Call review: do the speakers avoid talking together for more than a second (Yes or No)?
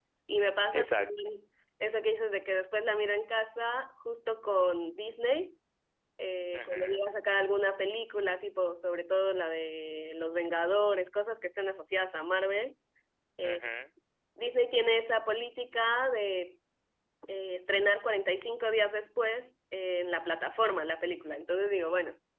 Yes